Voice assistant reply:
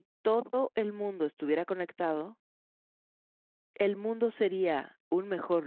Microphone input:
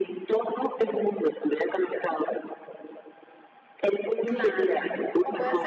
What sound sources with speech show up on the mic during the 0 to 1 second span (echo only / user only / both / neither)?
echo only